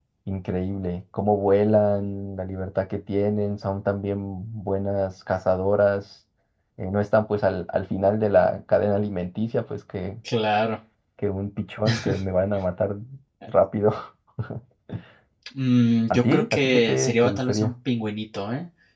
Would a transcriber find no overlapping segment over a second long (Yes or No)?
No